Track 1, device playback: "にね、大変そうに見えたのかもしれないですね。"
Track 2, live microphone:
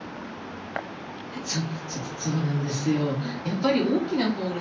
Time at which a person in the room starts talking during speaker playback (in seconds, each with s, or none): 1.4 s